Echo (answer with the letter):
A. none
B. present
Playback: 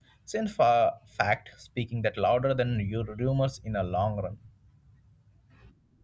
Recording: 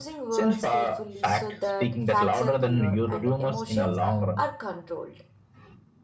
B